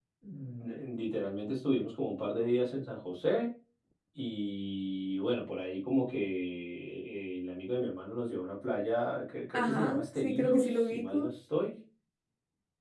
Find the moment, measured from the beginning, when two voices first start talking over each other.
9.5 s

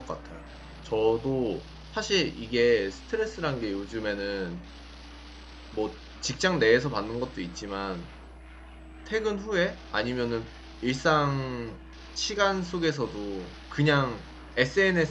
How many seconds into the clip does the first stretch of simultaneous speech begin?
none

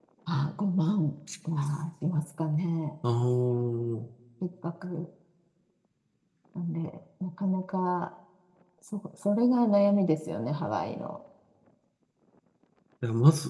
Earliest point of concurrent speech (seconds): none

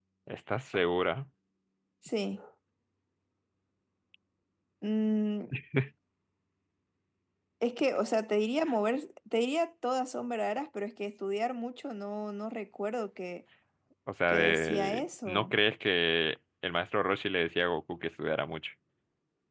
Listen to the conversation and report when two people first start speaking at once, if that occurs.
14.3 s

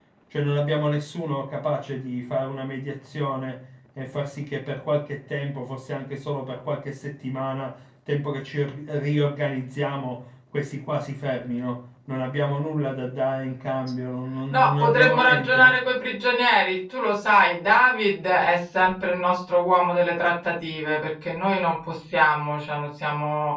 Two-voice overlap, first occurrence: 14.5 s

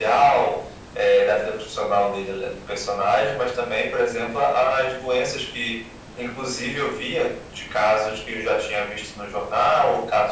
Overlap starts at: none

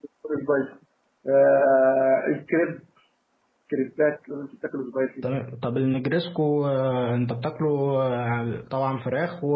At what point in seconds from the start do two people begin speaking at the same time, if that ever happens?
none

